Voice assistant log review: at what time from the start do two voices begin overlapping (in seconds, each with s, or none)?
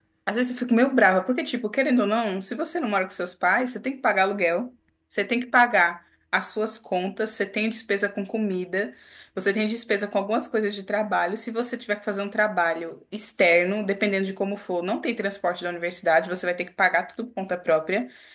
none